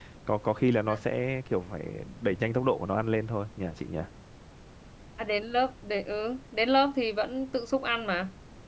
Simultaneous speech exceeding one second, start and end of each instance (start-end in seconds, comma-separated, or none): none